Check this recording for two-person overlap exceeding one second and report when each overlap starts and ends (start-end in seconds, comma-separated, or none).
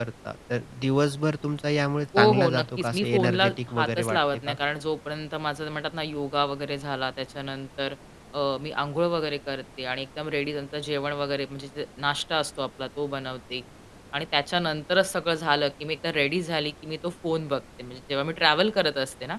2.2-4.5